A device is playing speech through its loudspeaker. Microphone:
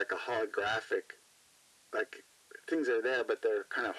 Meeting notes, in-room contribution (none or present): none